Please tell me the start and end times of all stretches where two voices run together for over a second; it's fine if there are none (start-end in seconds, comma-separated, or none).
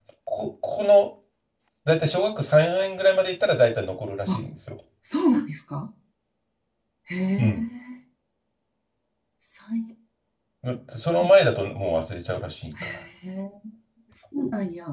none